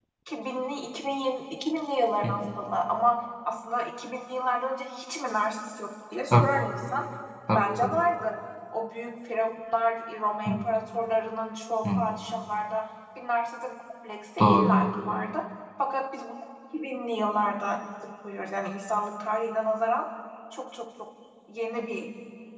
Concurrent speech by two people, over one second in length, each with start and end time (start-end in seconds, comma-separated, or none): none